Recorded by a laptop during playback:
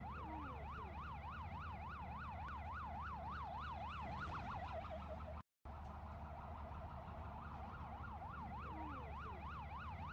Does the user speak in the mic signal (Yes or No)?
No